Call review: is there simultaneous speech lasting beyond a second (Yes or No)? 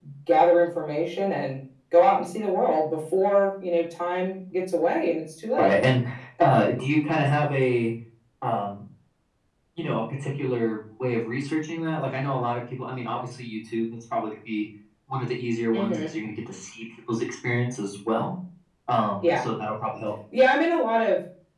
No